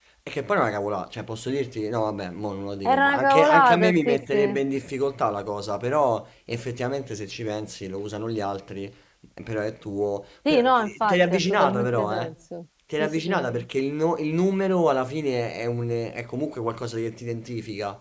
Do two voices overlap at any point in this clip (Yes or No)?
Yes